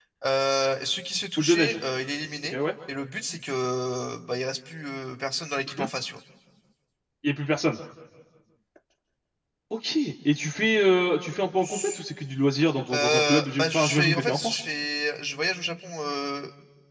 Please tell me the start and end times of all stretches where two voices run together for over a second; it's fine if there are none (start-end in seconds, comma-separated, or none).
12.9-14.6